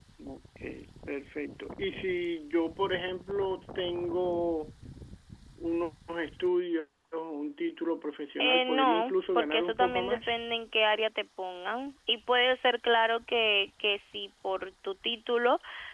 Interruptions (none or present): present